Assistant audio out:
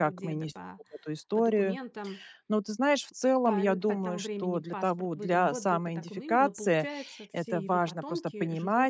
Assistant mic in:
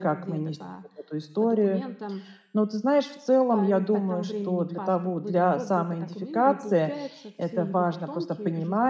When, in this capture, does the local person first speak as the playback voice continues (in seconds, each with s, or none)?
none